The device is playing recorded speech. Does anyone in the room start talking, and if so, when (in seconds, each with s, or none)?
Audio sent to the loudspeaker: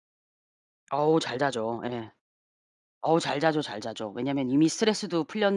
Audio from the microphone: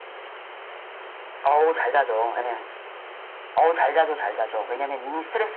none